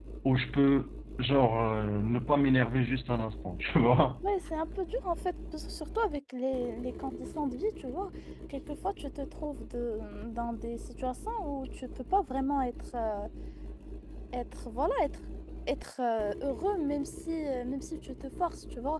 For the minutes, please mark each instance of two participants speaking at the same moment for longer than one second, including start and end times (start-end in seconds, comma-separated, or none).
none